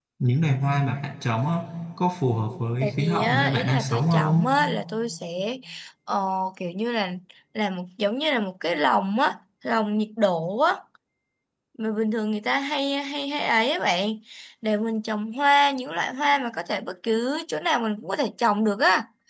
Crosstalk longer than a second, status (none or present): present